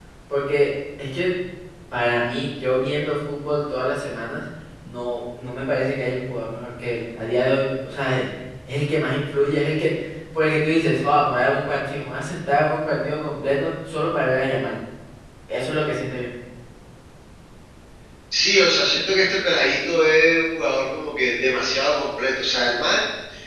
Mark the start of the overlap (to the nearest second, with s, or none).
none